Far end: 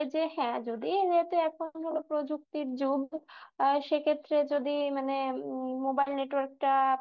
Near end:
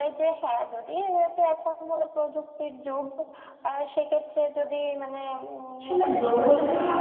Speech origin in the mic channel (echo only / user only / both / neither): both